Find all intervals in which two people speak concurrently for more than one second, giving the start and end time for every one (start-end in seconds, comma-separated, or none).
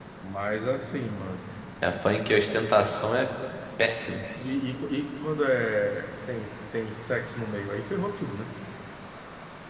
none